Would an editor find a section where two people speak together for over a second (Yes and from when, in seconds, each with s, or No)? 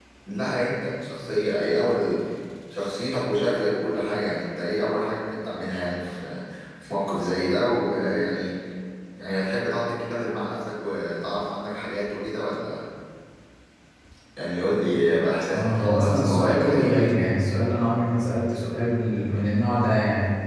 Yes, from 15.5 s